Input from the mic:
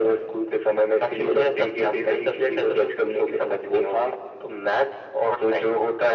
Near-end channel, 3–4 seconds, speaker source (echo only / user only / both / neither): echo only